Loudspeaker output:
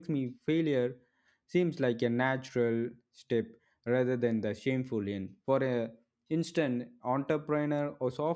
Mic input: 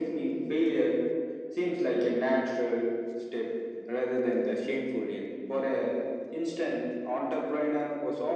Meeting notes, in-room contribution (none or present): none